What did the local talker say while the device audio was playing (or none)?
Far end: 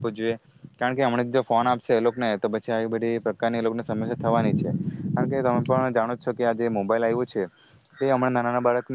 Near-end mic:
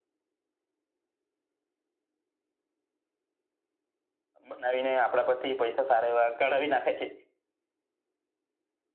બનાવીને આપડા પરથી પૈસા સારા એવા કઢાવી નાખે છે